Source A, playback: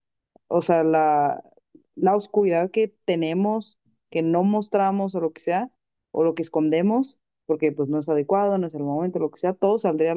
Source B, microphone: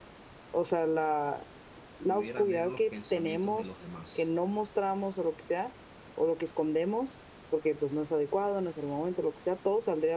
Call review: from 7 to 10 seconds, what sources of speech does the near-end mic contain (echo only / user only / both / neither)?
echo only